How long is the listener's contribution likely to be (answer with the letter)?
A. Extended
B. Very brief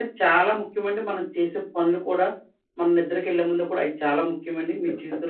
B